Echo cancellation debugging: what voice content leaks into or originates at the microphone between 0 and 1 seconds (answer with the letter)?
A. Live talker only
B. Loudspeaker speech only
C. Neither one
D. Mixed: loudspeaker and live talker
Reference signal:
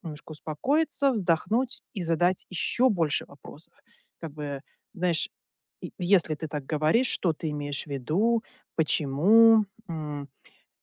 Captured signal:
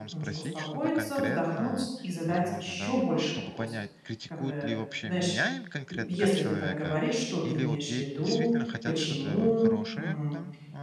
D